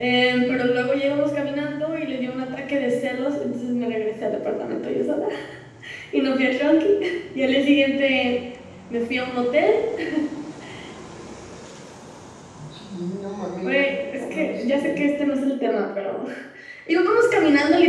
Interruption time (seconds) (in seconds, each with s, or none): 13.6 s